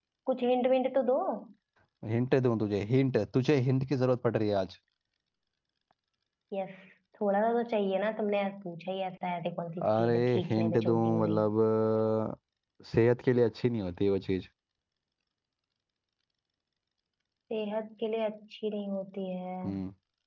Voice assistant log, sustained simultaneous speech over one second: present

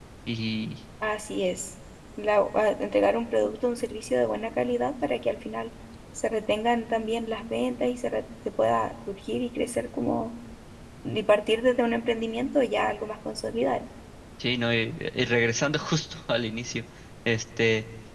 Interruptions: none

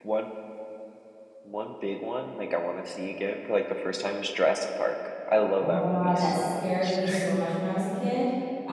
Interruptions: present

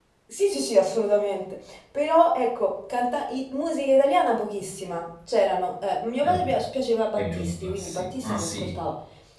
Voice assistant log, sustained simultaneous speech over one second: present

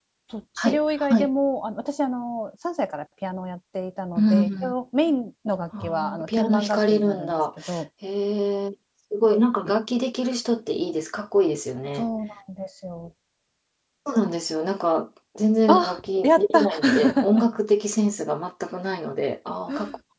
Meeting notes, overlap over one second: present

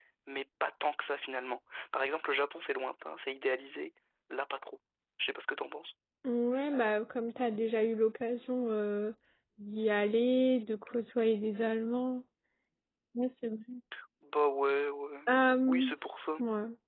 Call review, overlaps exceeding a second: none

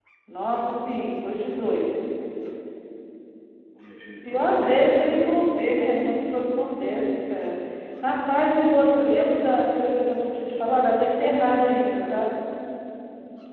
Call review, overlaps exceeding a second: present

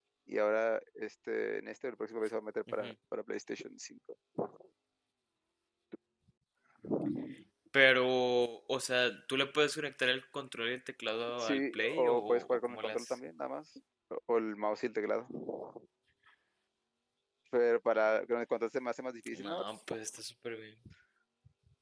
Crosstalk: present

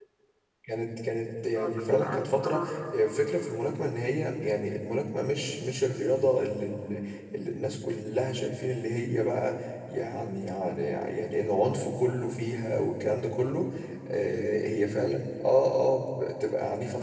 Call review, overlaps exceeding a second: present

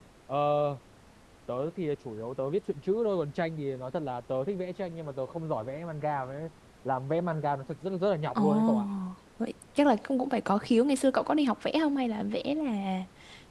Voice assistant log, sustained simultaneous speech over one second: none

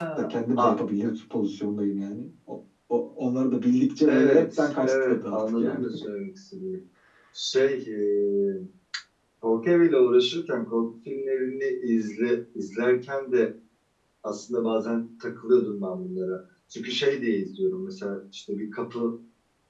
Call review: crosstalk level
present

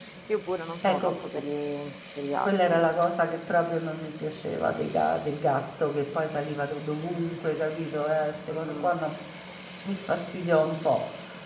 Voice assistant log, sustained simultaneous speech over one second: none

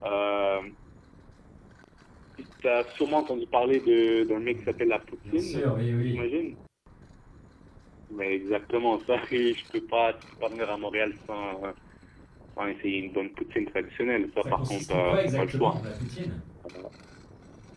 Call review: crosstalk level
present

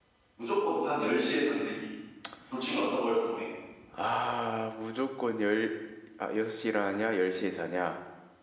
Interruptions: none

